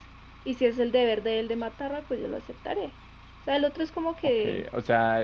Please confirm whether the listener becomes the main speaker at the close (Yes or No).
Yes